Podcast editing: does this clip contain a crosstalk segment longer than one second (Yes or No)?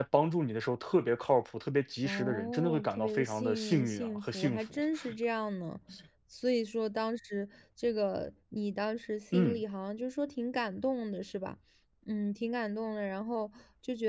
Yes